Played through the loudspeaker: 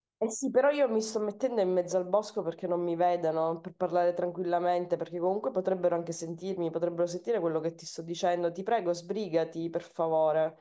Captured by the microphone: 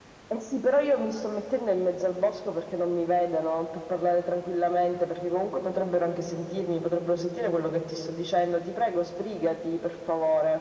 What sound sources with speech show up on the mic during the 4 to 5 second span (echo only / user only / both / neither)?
echo only